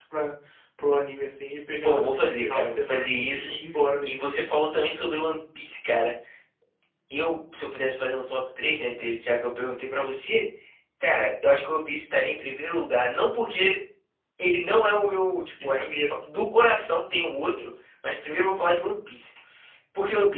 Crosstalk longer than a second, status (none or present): present